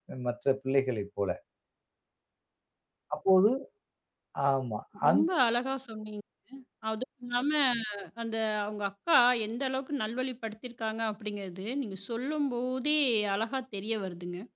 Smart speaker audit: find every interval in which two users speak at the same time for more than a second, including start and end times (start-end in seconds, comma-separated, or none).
none